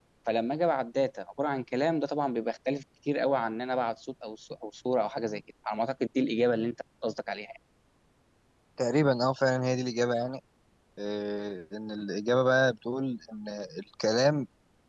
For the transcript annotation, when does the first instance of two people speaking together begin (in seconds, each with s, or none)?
none